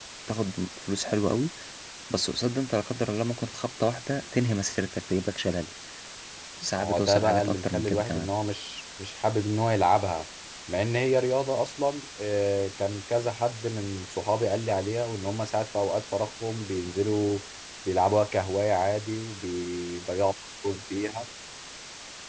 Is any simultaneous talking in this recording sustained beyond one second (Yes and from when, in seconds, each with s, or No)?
Yes, from 6.8 s